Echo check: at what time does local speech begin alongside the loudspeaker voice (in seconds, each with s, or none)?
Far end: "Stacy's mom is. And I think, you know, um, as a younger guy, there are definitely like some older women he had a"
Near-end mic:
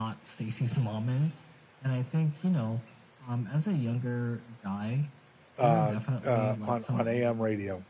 5.6 s